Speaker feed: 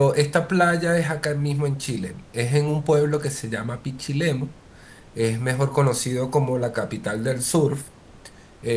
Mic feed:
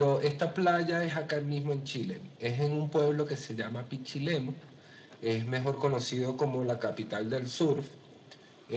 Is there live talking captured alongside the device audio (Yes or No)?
No